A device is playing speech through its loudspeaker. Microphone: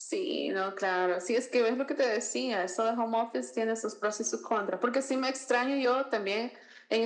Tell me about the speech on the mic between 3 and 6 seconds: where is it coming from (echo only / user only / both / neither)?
echo only